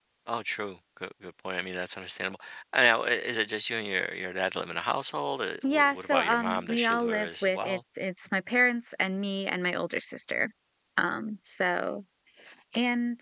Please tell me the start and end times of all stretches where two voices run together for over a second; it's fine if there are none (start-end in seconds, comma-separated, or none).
5.6-7.8